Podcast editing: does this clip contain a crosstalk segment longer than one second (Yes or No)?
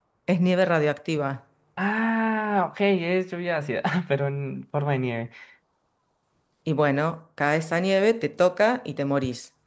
No